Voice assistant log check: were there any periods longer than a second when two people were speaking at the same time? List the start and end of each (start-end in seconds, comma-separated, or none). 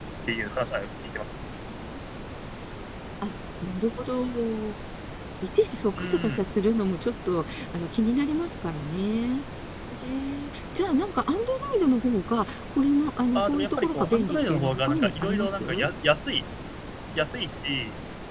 13.3-15.9